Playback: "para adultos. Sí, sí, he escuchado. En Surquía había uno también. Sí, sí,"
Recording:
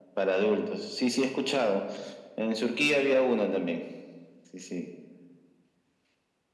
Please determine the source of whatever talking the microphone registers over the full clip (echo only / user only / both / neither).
echo only